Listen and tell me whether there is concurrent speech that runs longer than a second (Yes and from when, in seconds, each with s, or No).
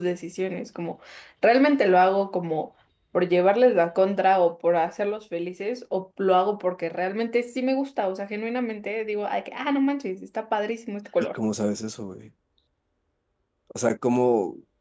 No